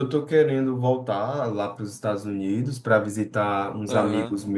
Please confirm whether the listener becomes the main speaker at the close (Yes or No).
No